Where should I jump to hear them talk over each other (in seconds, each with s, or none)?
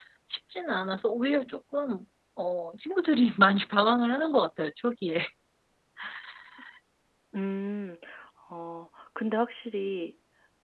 none